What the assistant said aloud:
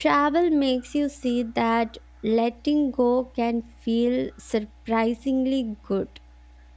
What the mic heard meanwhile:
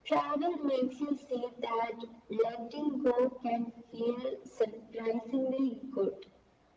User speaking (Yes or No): No